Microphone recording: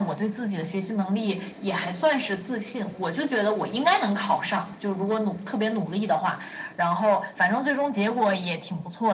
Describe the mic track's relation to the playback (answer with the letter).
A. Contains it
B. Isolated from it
A